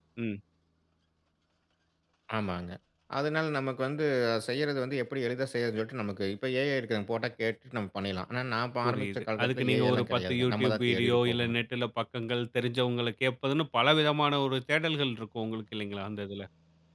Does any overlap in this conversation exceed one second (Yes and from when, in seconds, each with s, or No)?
Yes, from 8.8 s